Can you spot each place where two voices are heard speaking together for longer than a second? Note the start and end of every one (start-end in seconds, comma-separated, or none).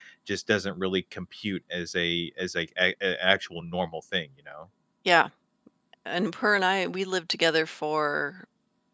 none